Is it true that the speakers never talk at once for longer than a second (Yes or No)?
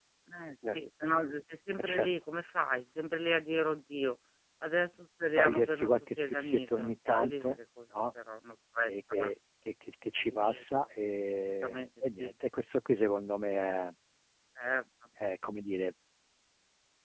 No